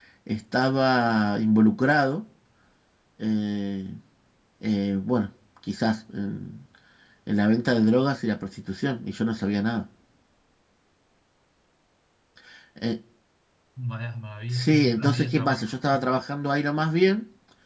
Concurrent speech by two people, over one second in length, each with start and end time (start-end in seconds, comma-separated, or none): 14.5-16.1